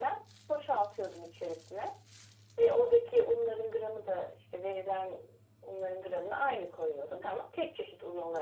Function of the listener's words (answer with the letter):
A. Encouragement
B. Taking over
B